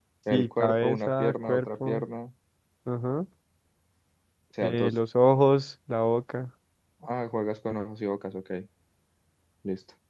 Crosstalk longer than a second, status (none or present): present